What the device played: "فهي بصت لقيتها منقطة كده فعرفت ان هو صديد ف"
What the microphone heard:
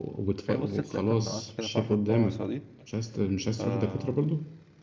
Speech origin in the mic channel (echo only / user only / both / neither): both